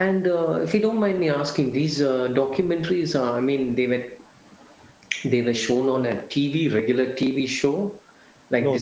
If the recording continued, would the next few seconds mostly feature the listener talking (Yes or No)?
Yes